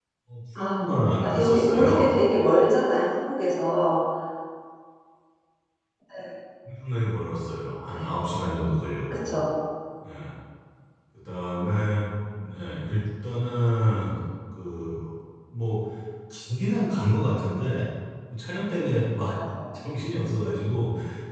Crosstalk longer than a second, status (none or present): present